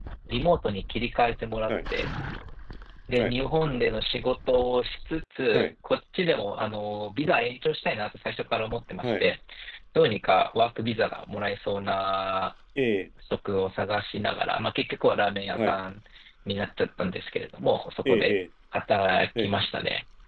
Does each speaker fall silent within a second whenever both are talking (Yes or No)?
Yes